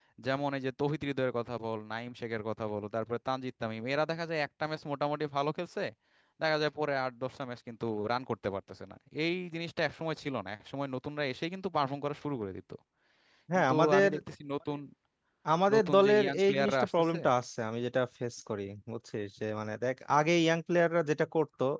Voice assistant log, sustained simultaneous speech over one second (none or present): present